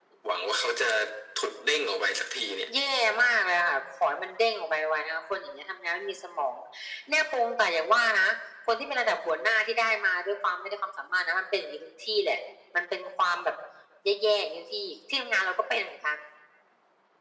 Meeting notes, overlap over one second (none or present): none